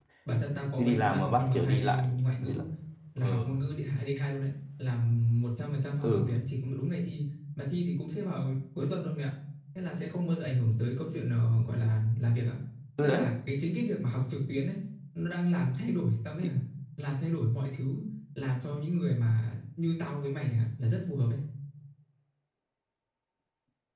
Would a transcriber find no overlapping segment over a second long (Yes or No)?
No